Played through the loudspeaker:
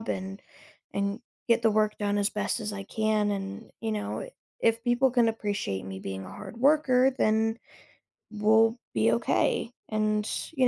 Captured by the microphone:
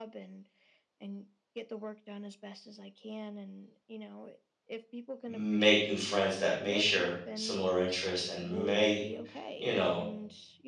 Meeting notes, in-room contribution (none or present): present